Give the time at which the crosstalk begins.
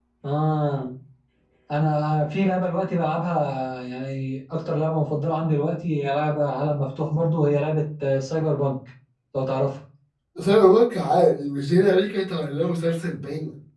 none

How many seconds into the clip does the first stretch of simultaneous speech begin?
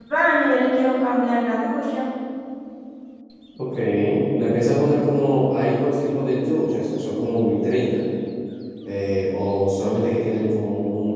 none

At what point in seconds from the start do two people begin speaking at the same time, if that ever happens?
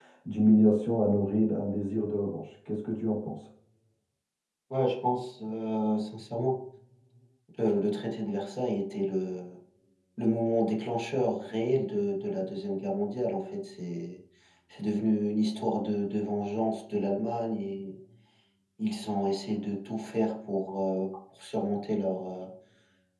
none

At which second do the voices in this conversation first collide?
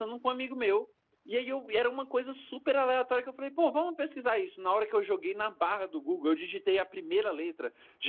none

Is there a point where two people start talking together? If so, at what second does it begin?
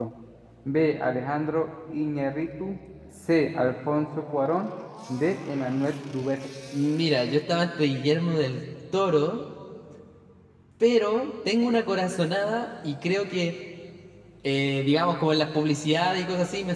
none

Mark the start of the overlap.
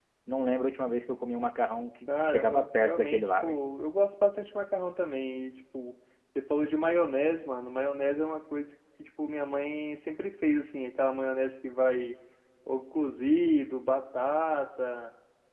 2.1 s

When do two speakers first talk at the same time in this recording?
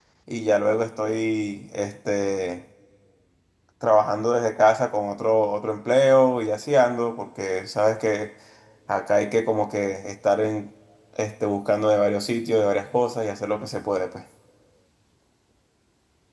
none

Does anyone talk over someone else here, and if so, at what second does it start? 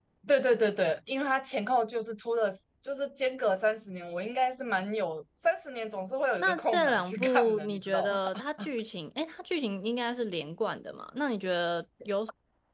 6.4 s

